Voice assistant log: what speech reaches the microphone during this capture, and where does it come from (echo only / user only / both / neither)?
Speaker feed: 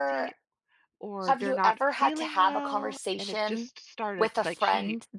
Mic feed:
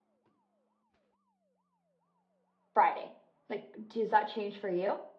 user only